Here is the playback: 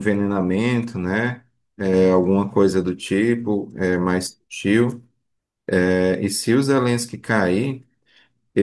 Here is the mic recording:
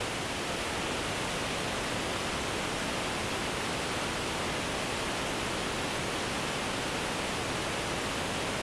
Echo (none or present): none